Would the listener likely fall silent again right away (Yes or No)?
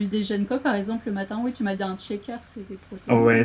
No